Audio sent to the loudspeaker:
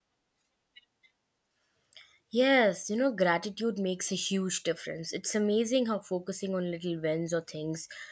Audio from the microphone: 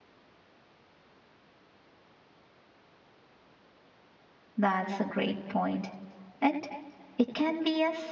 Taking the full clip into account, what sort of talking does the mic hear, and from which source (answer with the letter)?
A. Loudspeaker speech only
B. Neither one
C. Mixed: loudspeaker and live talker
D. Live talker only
D